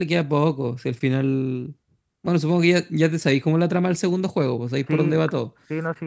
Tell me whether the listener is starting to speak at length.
Yes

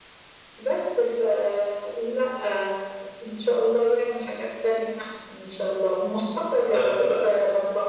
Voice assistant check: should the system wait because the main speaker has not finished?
Yes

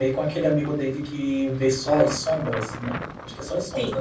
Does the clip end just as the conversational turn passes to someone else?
Yes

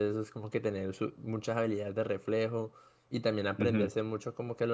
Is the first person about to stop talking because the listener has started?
No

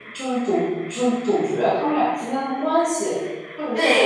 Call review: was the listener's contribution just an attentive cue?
No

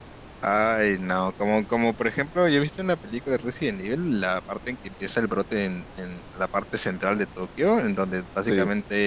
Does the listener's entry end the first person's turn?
No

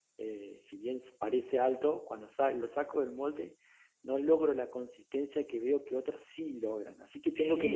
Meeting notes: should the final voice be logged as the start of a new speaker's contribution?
Yes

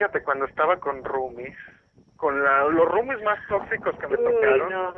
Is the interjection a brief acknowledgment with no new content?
Yes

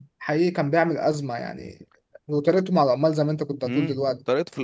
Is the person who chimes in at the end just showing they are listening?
No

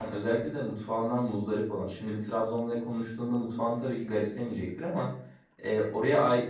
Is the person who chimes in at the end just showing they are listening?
Yes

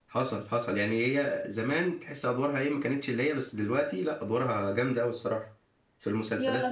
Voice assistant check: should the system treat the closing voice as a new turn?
Yes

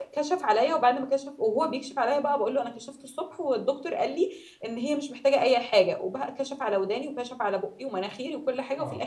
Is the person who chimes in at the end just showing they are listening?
Yes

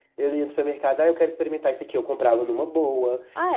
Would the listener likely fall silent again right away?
Yes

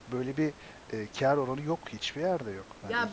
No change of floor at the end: No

